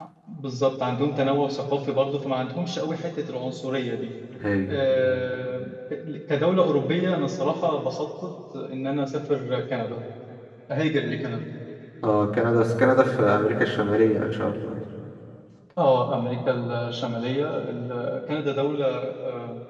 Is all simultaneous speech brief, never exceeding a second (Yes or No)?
Yes